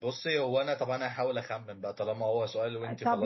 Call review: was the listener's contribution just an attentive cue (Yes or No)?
No